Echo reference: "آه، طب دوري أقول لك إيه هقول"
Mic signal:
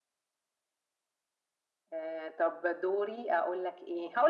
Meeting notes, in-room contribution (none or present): none